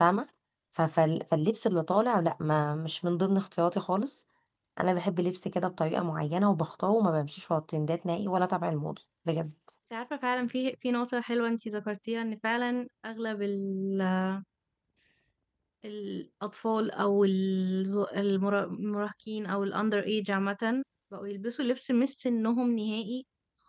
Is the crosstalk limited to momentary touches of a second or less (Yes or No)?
Yes